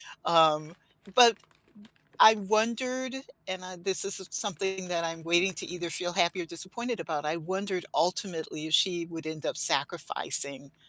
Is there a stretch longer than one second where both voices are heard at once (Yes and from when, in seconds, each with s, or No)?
No